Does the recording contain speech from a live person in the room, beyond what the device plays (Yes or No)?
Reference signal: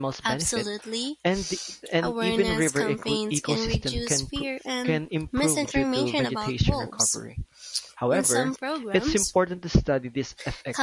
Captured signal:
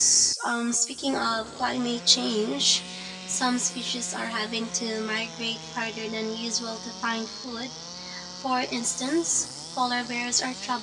Yes